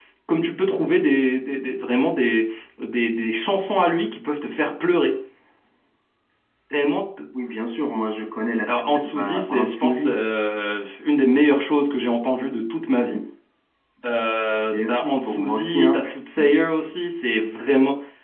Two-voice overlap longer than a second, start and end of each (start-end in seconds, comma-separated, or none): 8.7-10.2, 14.7-16.0